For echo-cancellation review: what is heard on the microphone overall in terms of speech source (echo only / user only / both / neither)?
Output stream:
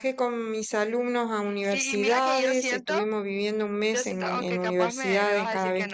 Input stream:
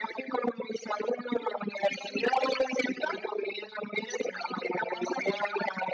echo only